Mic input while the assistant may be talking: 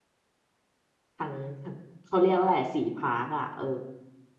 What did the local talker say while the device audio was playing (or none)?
ทั้งทั้งเขาเรียกว่าอะไรสี่พาร์คอ่ะเออ